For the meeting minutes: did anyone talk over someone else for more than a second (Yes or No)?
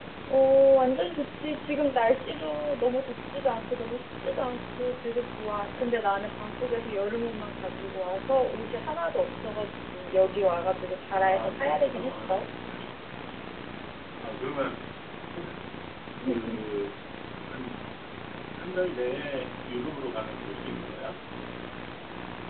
Yes